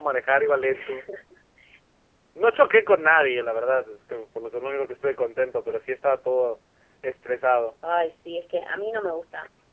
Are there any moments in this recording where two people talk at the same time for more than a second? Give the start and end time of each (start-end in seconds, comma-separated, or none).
none